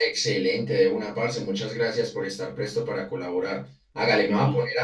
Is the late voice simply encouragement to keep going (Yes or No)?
Yes